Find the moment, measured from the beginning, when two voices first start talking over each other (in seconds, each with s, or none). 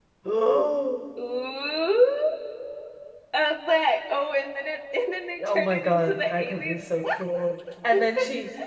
5.4 s